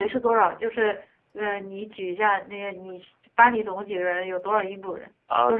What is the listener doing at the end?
taking over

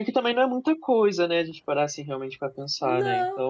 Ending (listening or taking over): taking over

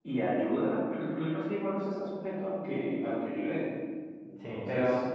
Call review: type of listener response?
taking over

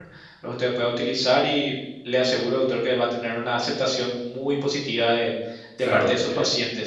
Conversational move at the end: taking over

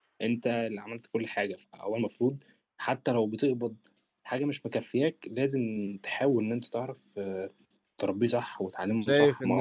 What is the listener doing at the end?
taking over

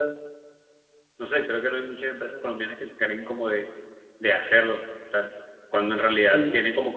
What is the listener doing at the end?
listening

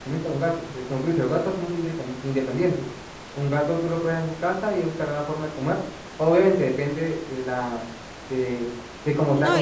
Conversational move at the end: taking over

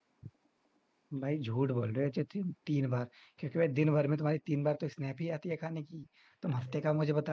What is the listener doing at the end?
listening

